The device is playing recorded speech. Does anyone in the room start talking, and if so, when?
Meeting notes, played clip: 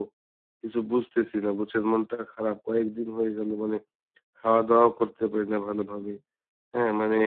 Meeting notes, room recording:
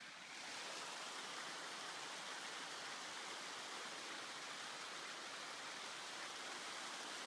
none

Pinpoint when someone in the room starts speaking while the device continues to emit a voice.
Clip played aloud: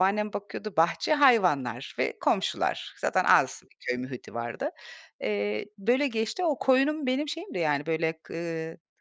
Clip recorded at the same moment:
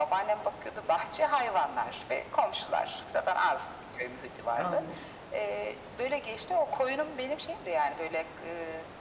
4.5 s

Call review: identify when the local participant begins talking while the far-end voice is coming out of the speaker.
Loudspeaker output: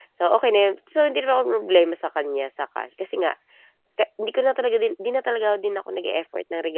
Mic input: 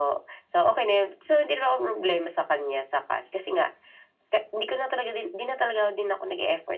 none

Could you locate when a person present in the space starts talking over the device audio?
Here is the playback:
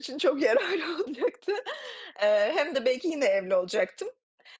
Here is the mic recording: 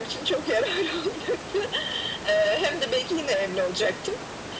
none

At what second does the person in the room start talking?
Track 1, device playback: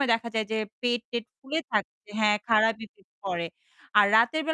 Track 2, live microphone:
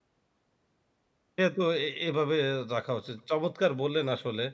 1.4 s

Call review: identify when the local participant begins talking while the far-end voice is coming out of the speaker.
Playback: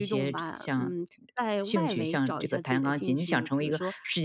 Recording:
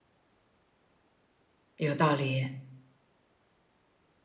1.8 s

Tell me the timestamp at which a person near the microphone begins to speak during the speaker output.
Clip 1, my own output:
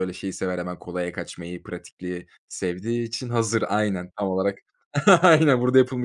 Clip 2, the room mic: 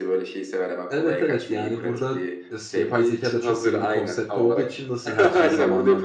0.9 s

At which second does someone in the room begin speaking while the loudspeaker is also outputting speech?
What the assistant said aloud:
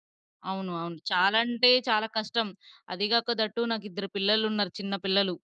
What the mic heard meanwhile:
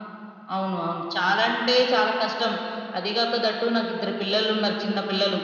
none

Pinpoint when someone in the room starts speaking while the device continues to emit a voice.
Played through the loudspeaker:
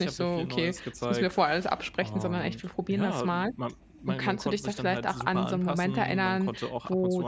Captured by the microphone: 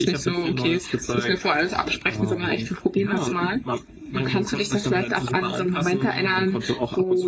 none

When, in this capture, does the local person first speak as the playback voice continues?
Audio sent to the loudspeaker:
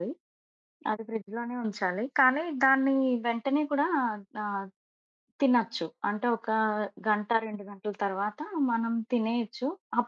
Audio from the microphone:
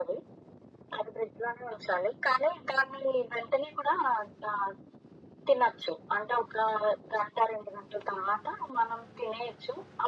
none

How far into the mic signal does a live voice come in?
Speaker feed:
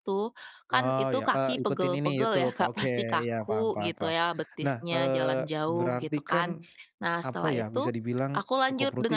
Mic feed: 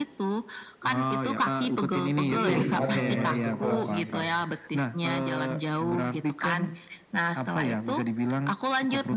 2.2 s

